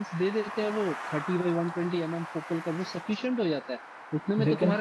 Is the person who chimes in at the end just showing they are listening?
Yes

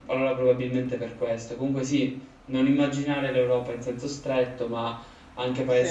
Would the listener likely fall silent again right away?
Yes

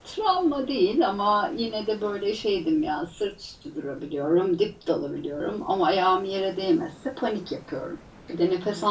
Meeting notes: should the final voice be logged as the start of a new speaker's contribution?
Yes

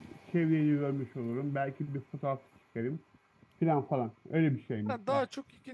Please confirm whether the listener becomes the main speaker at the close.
Yes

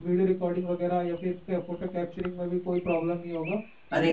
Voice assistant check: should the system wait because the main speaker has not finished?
No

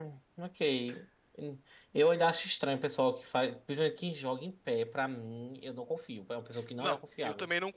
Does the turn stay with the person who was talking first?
No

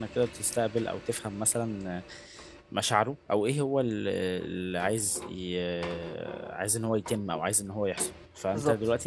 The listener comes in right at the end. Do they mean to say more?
No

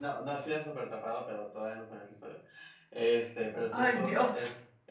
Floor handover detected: No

